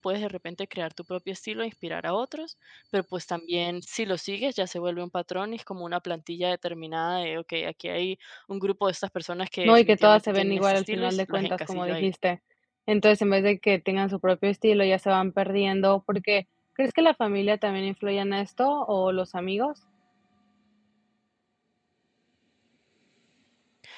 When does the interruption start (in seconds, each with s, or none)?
9.6 s